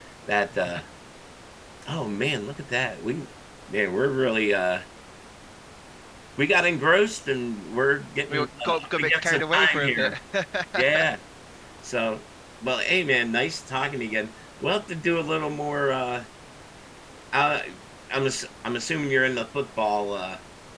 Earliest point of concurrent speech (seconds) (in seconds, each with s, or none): 8.3 s